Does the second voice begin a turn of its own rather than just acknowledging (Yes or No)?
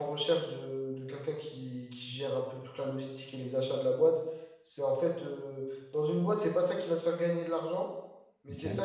No